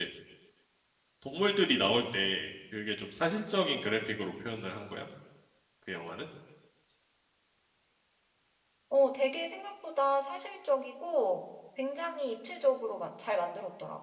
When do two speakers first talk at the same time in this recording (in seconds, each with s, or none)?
none